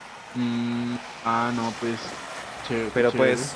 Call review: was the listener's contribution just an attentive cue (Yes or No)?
No